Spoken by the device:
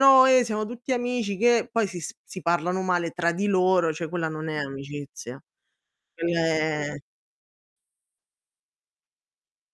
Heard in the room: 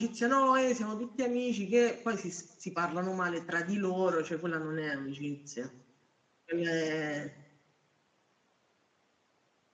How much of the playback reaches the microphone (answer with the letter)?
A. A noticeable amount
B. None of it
A